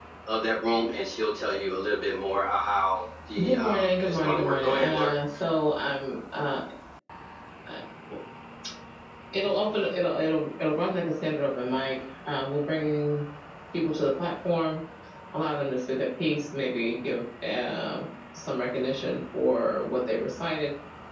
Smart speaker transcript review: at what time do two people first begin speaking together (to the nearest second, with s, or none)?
3 s